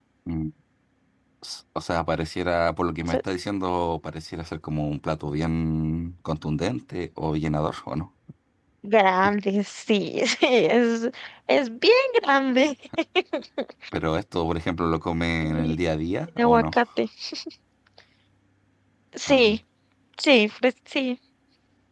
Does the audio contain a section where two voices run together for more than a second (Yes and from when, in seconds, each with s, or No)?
No